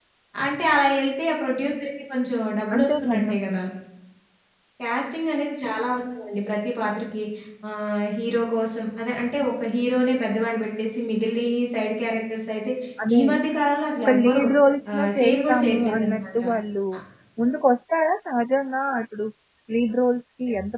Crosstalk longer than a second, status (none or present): present